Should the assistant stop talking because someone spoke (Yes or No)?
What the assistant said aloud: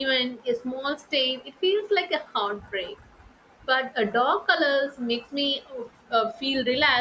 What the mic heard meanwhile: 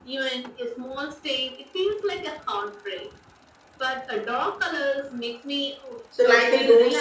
Yes